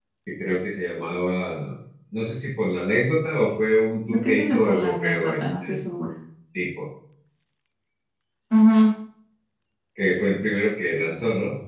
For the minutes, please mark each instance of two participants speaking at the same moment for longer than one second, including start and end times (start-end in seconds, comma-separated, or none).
4.1-5.8